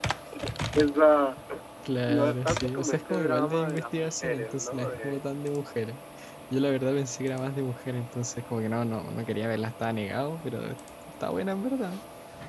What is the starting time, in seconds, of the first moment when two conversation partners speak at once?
2 s

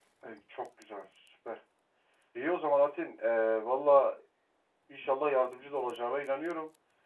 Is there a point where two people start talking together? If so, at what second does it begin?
none

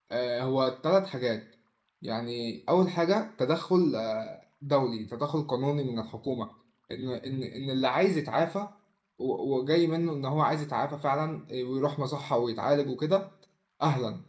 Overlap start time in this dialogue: none

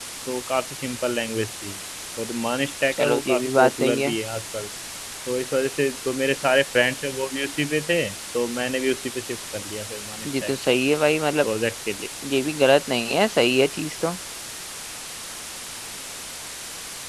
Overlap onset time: 3 s

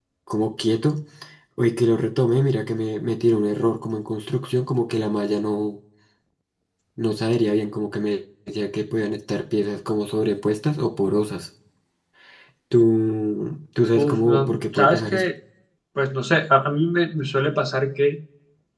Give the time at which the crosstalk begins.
14 s

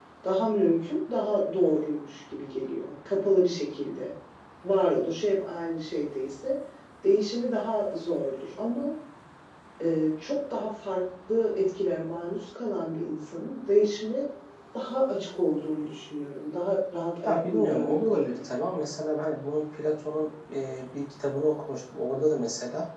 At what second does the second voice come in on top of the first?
17 s

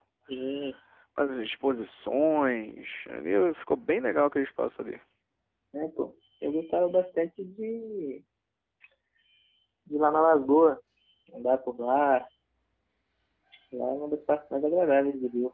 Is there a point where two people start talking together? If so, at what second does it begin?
none

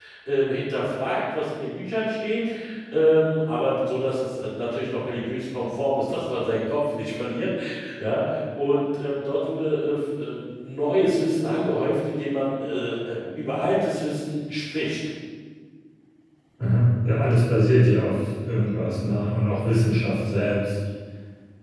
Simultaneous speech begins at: none

